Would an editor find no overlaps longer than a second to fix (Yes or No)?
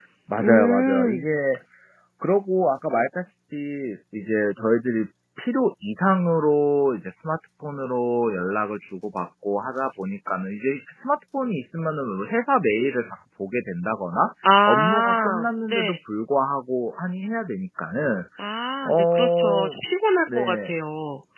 No